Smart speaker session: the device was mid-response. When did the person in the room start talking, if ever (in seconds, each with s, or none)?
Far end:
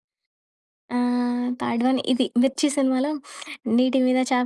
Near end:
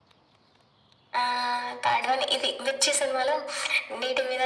none